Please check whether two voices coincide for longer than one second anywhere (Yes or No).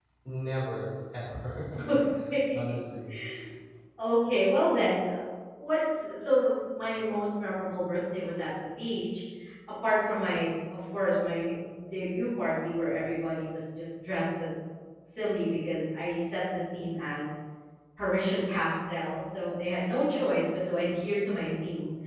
No